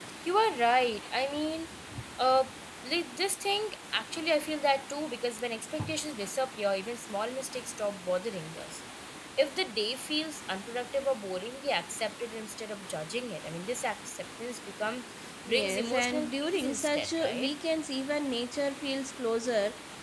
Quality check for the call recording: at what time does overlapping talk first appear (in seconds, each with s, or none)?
15.5 s